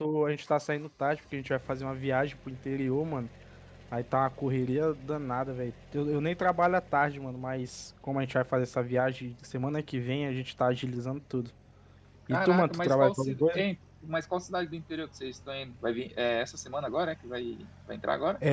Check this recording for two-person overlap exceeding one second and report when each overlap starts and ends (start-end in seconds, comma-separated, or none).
12.3-13.6